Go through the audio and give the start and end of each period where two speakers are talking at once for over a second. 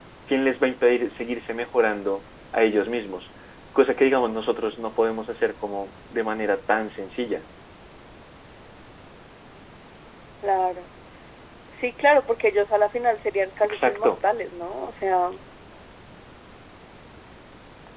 none

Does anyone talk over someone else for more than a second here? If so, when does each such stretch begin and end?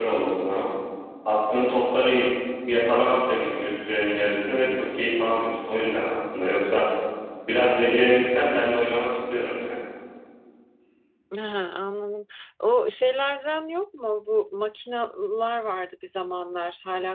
none

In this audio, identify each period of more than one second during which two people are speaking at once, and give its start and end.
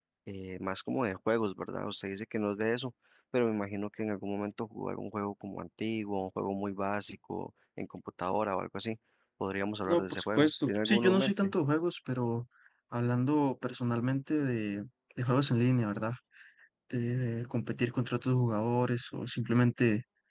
9.9-11.5

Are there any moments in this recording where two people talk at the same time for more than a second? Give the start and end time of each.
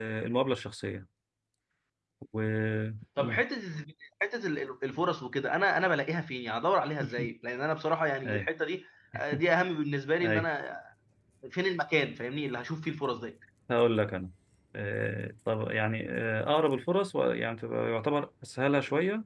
none

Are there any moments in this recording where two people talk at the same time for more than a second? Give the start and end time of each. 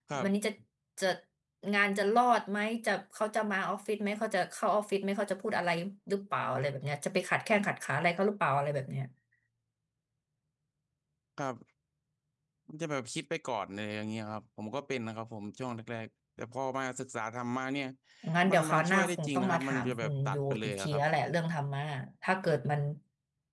18.5-21.0

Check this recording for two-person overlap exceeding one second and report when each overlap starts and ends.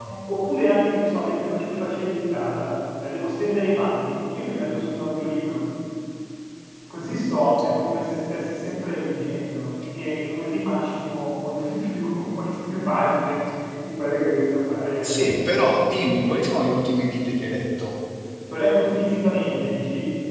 none

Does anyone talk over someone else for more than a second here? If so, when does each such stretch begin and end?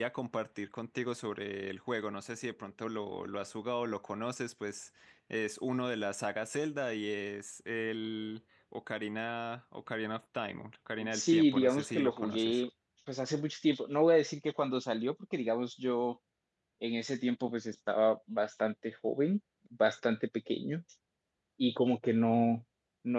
11.1-12.6

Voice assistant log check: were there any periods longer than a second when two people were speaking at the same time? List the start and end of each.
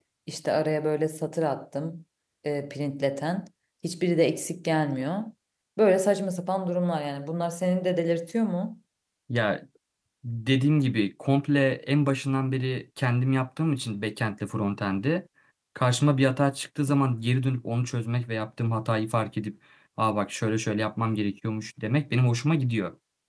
none

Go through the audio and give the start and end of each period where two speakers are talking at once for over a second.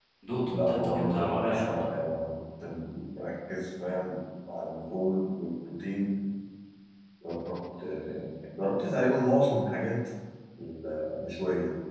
0.5-1.9

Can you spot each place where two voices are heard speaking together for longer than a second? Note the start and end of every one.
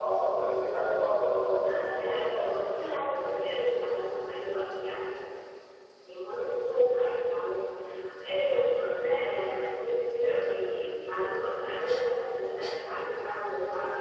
1.6-3.0

